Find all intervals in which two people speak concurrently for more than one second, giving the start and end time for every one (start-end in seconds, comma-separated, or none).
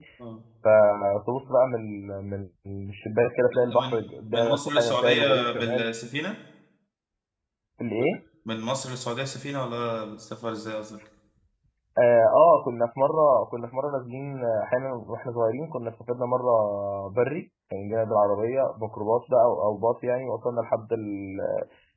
3.5-5.9